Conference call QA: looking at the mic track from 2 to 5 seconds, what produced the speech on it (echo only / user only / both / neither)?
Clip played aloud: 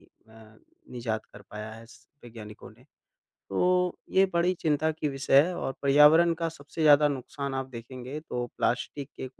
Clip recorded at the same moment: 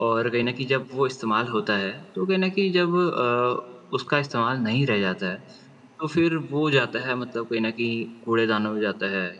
user only